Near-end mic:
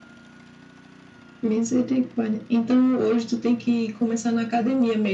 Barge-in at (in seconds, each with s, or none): none